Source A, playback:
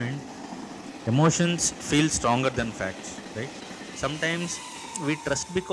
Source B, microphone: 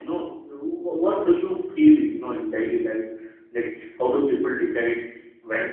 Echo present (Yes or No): No